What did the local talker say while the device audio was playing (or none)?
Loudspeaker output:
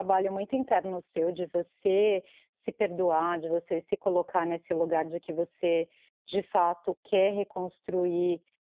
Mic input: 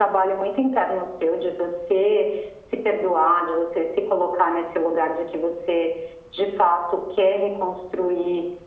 none